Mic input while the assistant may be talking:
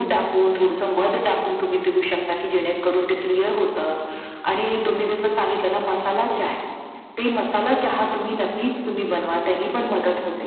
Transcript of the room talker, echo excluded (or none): none